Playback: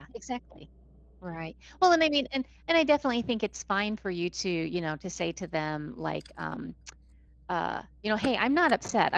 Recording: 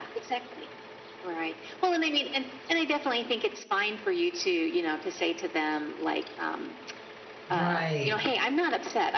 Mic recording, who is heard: both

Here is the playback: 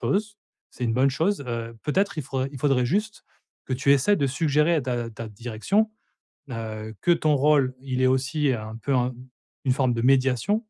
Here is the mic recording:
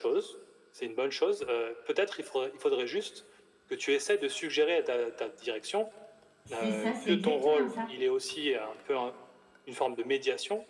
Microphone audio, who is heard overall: both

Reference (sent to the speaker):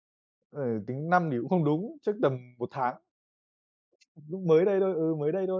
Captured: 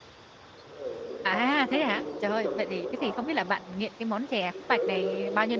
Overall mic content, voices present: both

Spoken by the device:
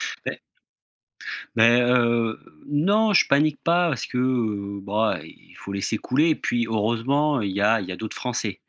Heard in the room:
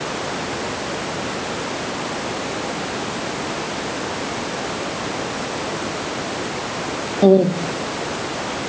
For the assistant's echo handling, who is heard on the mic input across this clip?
user only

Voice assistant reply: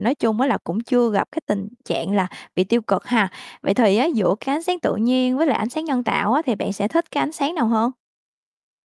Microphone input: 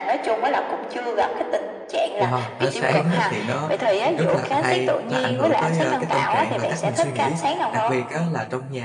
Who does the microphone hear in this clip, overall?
both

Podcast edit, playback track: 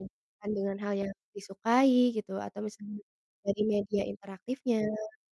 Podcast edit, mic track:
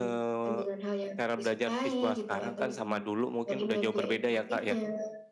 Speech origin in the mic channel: both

